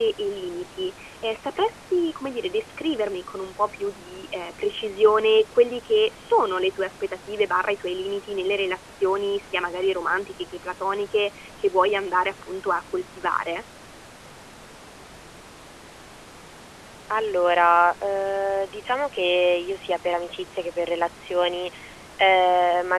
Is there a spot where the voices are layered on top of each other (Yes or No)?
No